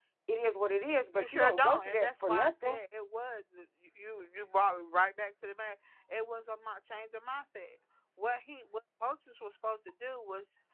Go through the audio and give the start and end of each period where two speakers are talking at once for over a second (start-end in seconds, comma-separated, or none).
1.1-2.8